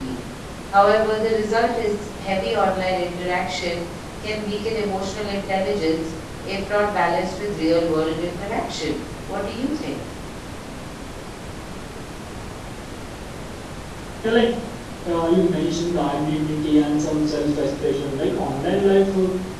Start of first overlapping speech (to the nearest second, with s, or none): none